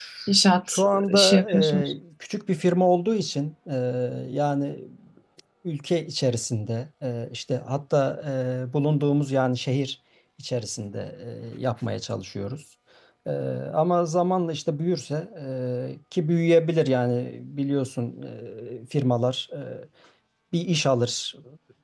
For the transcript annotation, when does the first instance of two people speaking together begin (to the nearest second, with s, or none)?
1 s